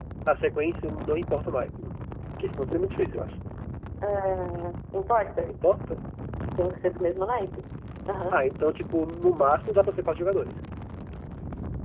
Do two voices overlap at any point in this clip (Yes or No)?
No